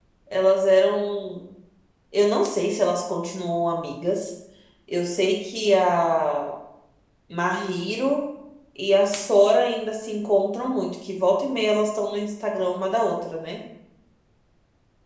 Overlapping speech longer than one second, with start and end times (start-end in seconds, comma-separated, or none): none